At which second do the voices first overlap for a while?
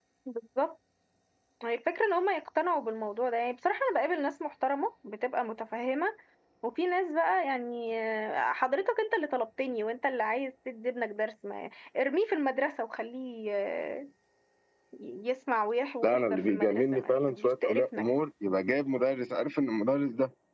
16 s

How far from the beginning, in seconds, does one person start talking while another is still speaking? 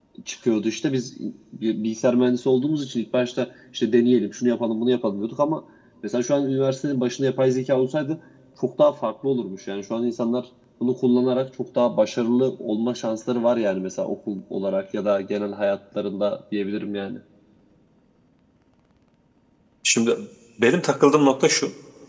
none

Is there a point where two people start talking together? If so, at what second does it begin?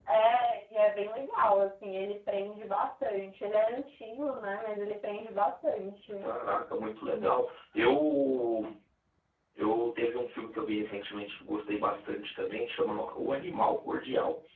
none

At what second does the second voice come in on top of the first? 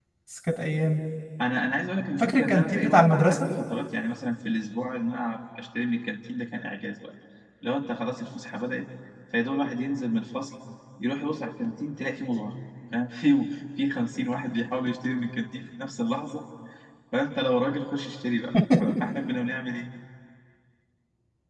2 s

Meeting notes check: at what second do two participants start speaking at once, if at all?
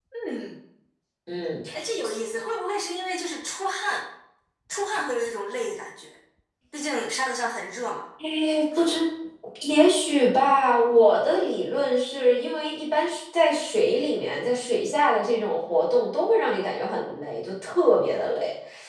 none

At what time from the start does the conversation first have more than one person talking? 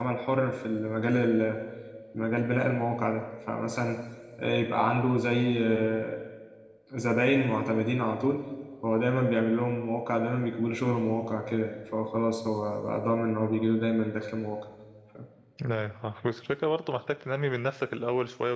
none

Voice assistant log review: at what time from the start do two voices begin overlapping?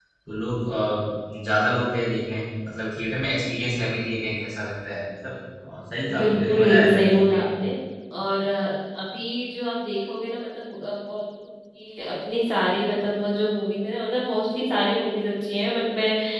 6 s

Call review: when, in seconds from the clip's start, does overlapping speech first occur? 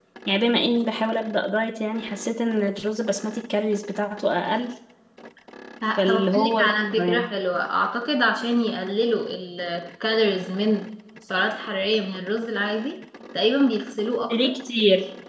6 s

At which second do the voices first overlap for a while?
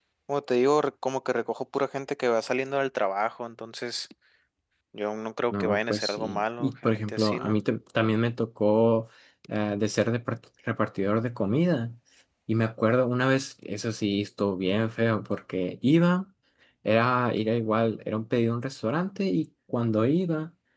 6 s

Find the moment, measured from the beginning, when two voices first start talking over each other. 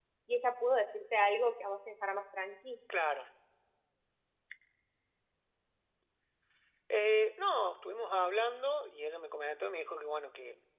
none

